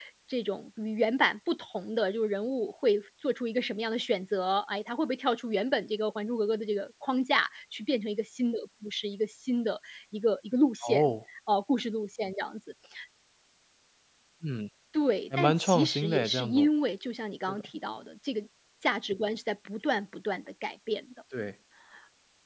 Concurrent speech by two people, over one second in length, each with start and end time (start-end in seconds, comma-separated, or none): 15.4-16.7